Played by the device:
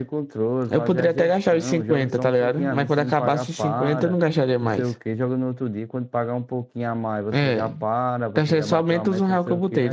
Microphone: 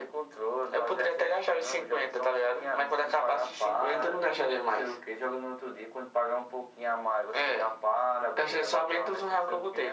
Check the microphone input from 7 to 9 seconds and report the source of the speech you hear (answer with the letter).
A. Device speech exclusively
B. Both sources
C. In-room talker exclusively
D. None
A